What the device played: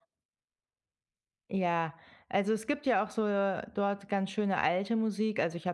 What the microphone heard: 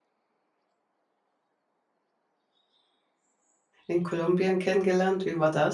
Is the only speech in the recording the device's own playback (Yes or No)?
No